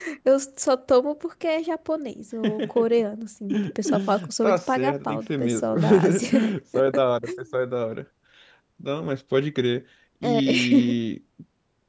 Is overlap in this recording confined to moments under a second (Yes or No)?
No